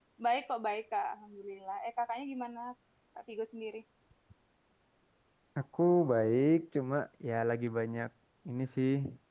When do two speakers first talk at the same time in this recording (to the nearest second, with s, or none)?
none